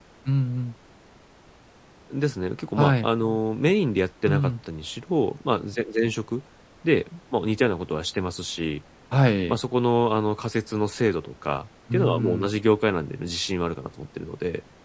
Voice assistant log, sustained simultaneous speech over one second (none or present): none